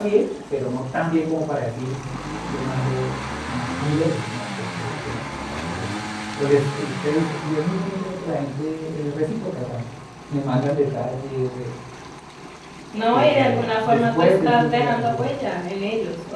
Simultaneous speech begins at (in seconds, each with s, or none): 13.1 s